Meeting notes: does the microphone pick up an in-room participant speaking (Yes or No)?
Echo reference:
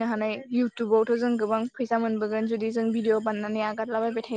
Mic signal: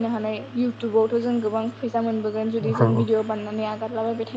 Yes